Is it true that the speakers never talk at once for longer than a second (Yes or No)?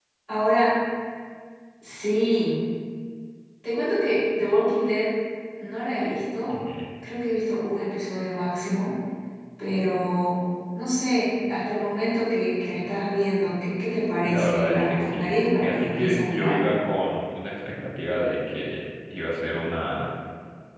No